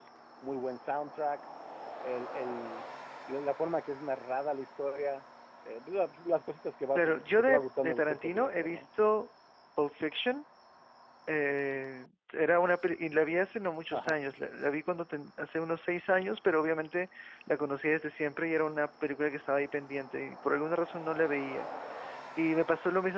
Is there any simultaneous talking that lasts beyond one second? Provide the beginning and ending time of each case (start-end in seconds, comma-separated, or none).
7.0-8.8